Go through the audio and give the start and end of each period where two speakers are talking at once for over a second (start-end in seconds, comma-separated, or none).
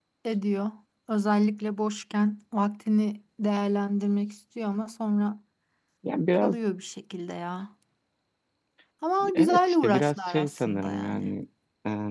9.3-11.3